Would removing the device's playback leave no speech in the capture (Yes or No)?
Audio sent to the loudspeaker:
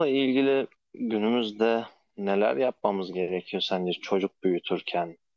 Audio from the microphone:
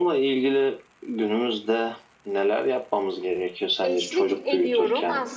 No